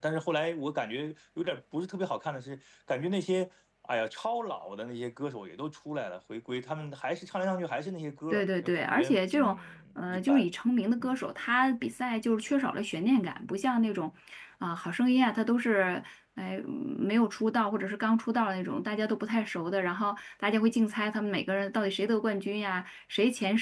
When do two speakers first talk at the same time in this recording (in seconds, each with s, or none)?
8.3 s